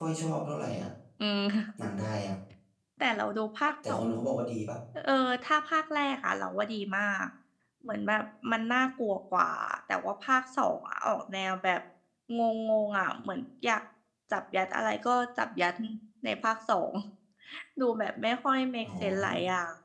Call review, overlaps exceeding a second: none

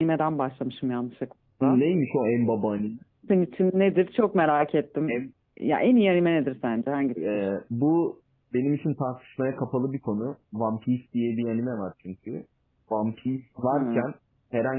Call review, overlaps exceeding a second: none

